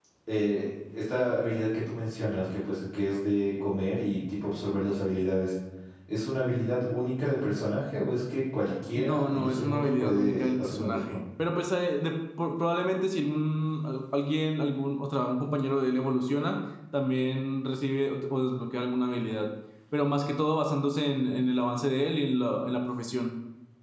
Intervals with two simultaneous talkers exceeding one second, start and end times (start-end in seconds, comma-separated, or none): 9.0-11.2